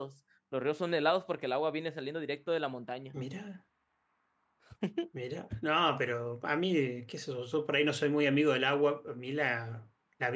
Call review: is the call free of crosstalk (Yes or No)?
Yes